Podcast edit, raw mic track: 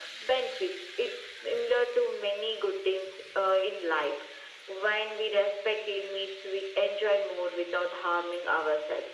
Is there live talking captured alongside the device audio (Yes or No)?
No